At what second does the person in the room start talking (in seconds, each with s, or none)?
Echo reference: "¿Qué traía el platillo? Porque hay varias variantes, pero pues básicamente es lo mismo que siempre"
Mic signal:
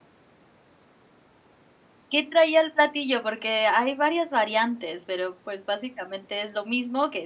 none